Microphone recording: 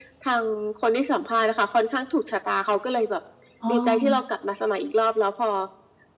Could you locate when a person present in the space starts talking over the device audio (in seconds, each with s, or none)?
3.6 s